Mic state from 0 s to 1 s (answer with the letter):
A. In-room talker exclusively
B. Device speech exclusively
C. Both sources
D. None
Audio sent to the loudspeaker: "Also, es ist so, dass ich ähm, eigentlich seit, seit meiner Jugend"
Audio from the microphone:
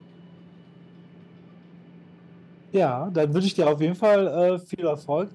D